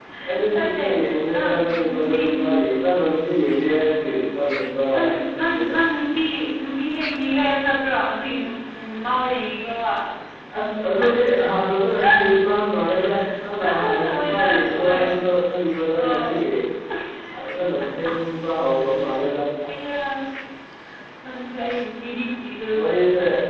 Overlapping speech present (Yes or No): Yes